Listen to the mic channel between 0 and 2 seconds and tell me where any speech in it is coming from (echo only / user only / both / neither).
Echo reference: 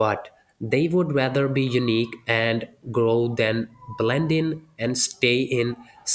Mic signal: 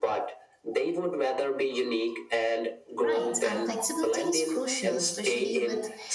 echo only